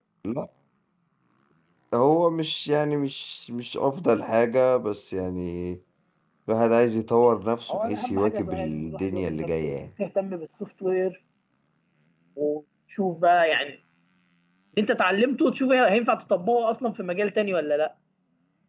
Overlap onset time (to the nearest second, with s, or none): 8 s